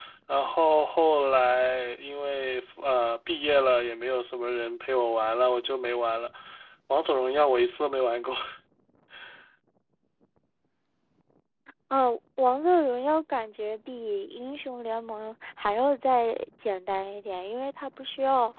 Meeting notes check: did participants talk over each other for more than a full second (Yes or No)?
No